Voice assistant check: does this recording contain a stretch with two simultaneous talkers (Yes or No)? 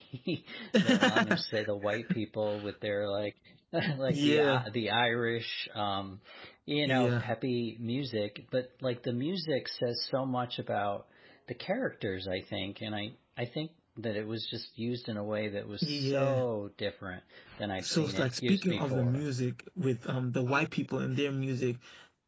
Yes